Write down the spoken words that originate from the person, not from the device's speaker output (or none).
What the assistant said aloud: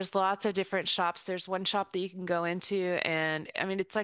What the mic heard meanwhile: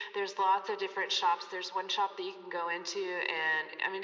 none